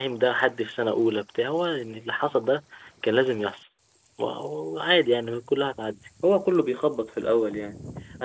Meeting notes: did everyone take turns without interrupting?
Yes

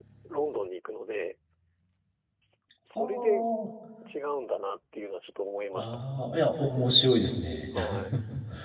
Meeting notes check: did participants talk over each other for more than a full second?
No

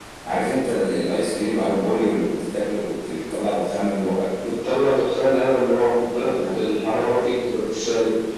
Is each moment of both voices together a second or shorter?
Yes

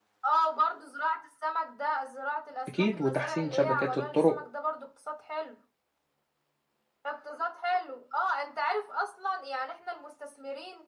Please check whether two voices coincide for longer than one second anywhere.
Yes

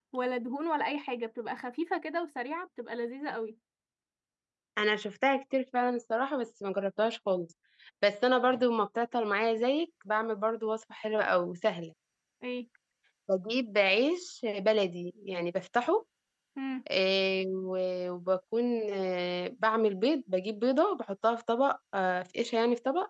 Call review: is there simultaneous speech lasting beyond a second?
No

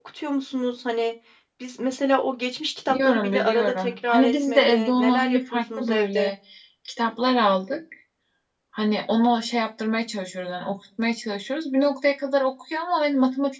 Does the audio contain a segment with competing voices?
Yes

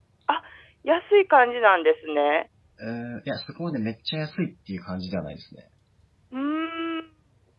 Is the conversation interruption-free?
Yes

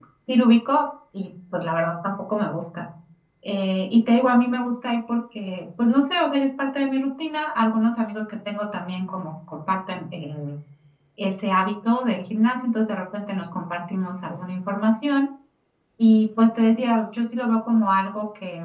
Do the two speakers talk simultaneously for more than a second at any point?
No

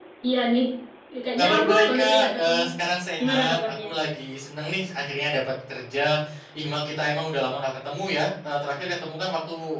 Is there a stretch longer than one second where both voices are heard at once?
Yes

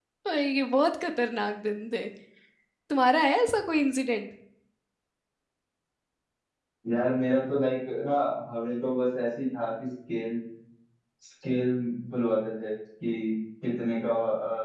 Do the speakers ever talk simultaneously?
No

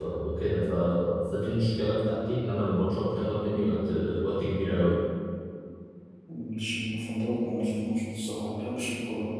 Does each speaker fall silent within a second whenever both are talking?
Yes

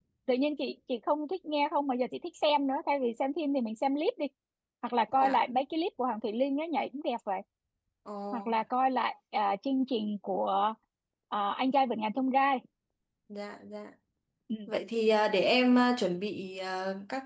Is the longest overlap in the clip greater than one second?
No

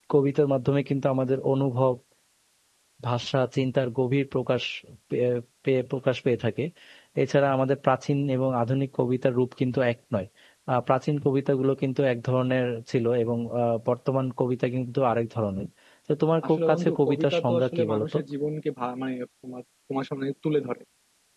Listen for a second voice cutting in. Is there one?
Yes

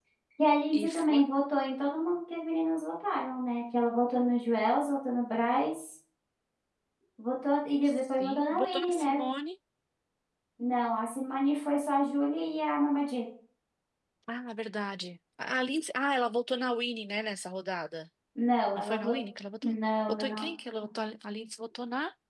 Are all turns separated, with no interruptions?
No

